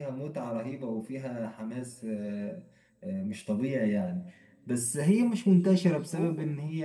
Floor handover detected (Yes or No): No